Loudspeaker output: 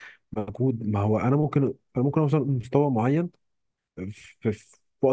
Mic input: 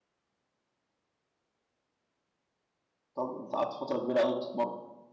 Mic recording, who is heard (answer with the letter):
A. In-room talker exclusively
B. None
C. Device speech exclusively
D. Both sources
A